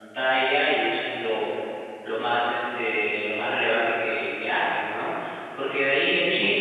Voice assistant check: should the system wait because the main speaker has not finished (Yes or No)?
Yes